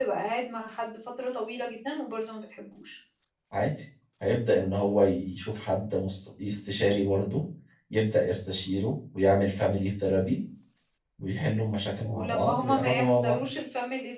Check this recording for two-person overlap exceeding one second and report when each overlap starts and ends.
12.0-13.4

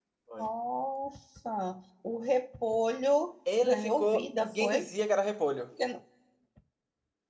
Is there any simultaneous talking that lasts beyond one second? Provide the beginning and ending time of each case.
3.6-4.9

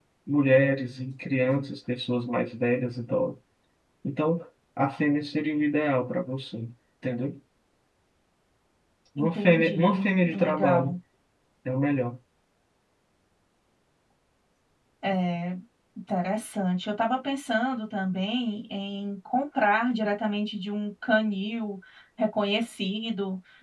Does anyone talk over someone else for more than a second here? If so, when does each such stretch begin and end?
9.2-11.0

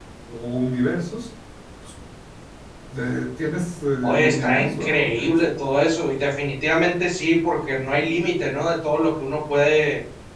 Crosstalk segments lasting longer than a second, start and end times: 4.0-5.5

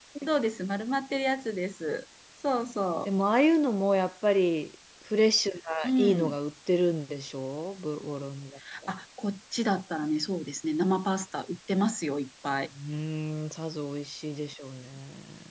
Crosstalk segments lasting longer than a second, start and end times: none

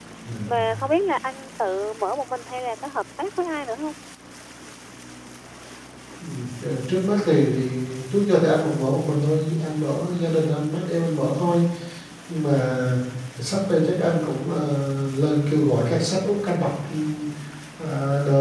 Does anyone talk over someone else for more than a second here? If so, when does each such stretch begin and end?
none

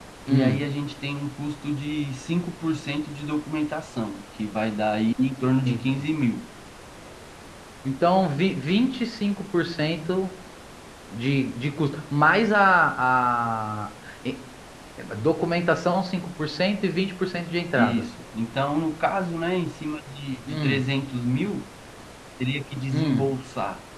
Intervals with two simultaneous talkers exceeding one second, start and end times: none

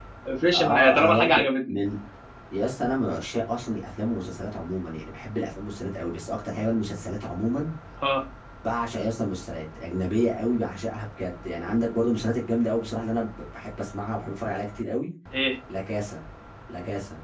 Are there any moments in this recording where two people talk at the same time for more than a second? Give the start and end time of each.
0.5-1.8

